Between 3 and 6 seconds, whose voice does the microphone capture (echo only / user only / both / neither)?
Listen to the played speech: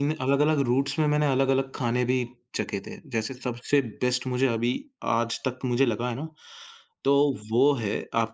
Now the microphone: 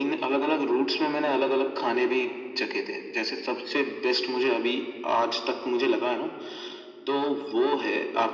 echo only